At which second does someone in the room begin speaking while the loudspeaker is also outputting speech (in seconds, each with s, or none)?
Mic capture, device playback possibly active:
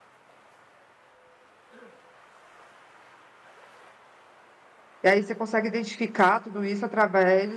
5.0 s